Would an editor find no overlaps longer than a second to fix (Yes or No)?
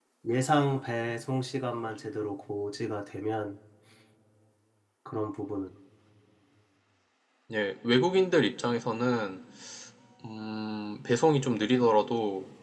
Yes